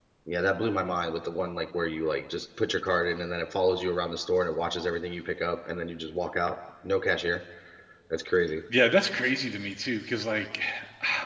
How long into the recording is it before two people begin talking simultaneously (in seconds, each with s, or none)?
none